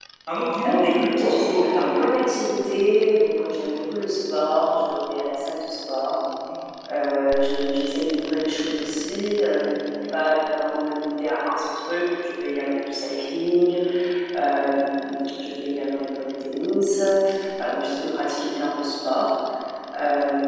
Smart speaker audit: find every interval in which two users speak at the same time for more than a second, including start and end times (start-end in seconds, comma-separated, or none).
0.6-2.1